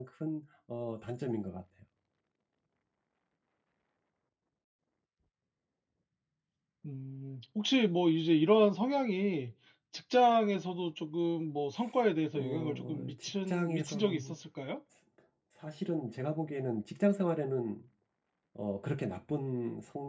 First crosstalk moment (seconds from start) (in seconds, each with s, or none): 12.3 s